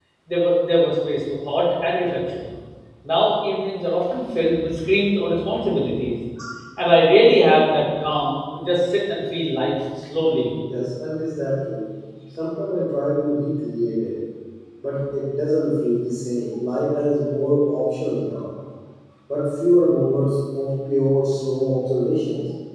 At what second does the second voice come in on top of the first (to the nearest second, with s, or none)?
none